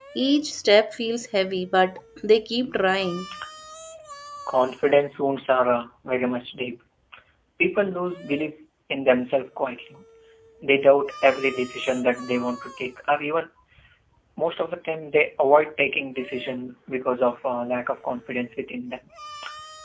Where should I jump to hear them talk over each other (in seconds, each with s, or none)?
none